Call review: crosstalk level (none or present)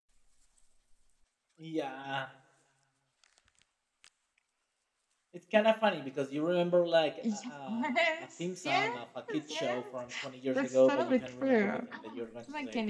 present